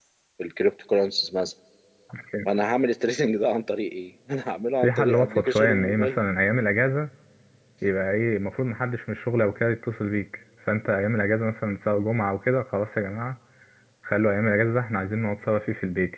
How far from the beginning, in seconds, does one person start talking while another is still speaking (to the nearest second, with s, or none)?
5 s